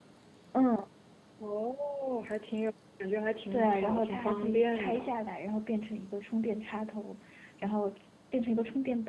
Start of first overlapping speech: 3.5 s

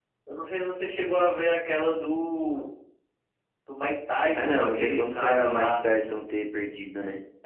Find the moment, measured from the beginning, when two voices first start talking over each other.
4.3 s

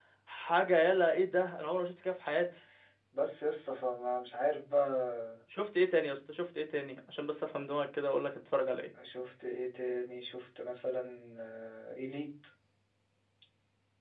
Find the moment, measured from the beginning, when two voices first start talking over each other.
none

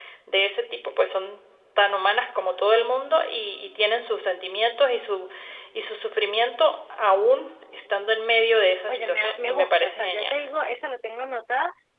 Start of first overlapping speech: 8.9 s

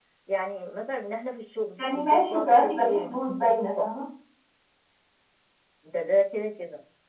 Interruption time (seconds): 1.8 s

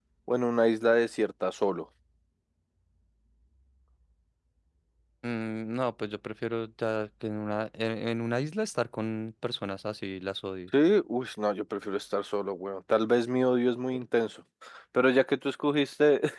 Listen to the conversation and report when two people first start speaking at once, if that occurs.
none

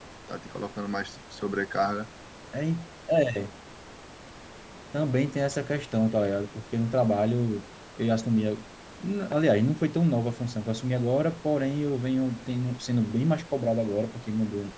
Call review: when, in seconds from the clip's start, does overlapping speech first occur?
none

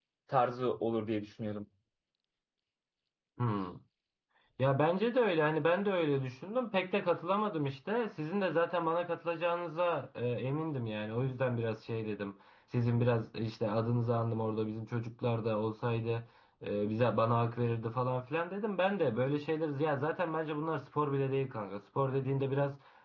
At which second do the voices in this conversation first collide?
none

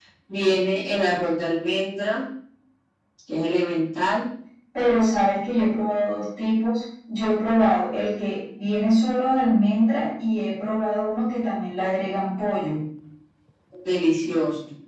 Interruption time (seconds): none

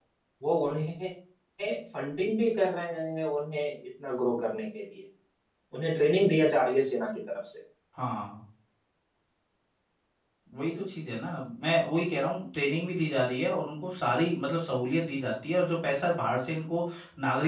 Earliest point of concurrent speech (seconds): none

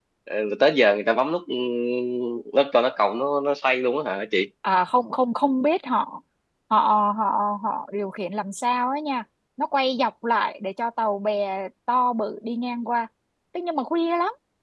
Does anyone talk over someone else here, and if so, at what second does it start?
none

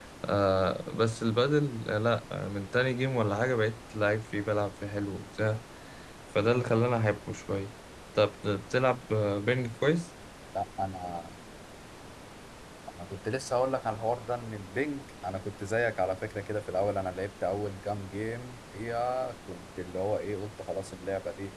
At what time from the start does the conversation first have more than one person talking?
none

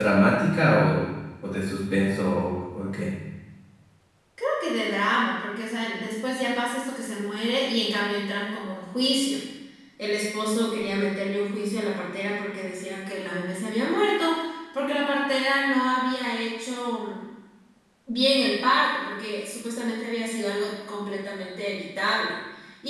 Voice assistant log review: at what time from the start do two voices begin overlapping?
none

